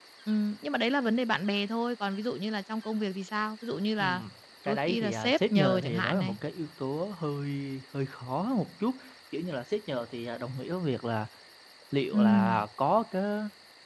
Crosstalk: present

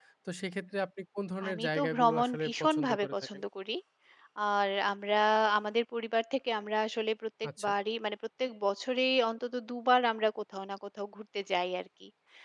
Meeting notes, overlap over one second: present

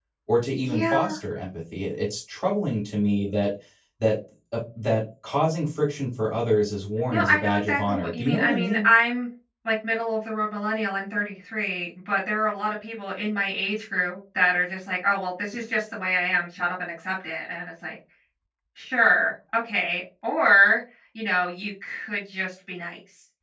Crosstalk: present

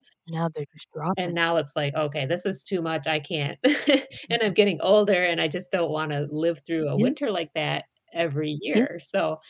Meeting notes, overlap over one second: none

